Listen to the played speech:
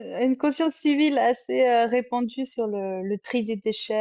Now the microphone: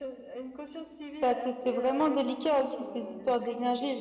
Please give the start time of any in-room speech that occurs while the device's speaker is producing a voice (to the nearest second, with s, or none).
1 s